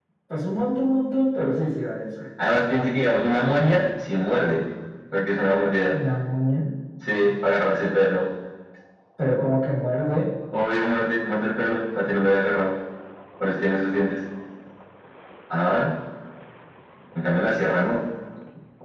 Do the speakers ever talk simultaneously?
No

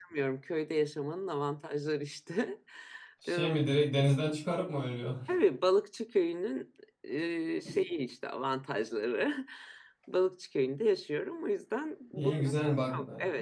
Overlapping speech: Yes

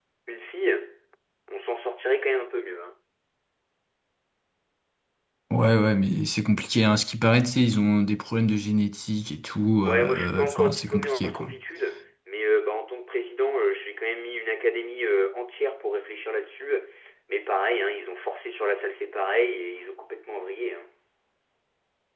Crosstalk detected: Yes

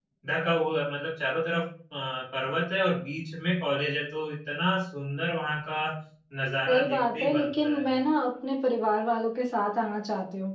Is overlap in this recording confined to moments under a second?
No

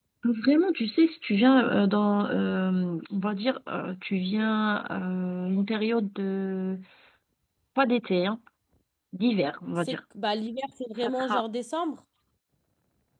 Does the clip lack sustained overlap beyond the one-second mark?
Yes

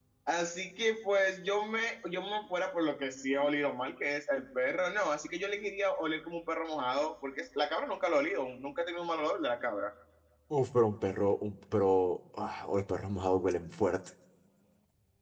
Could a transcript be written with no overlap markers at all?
Yes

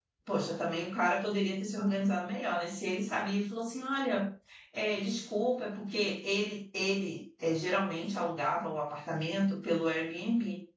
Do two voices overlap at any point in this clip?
No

